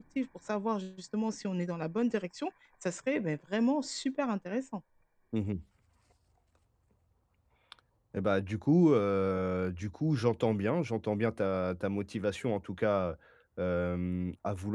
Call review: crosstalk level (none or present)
none